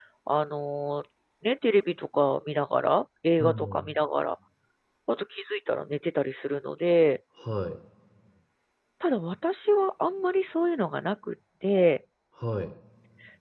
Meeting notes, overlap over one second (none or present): none